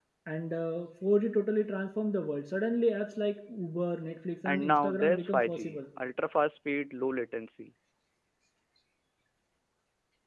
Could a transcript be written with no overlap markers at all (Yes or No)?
No